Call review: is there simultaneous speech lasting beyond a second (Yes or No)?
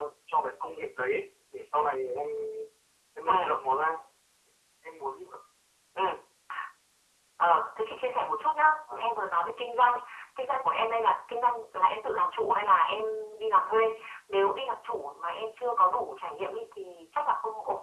No